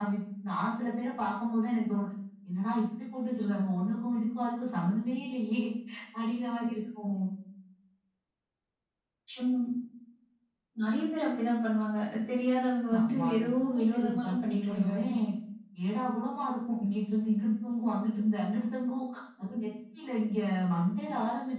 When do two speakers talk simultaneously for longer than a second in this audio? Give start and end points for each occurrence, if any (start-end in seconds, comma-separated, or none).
13.0-15.1